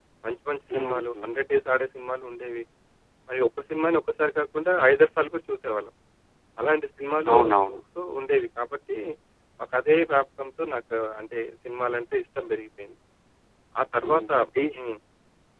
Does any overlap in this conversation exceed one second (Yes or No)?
No